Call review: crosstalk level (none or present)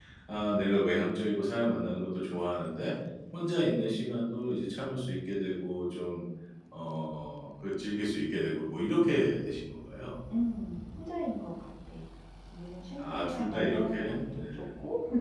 present